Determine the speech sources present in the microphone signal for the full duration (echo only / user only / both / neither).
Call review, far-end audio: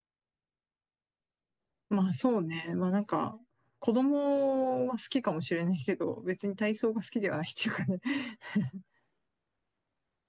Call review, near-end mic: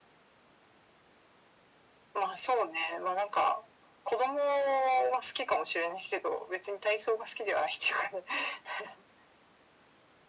echo only